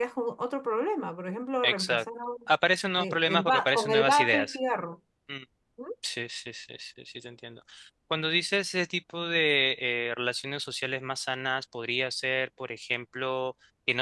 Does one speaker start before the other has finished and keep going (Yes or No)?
Yes